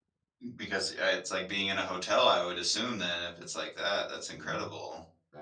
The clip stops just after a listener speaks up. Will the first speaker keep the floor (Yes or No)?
No